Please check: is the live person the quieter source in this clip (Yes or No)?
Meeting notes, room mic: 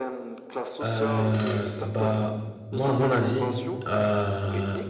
No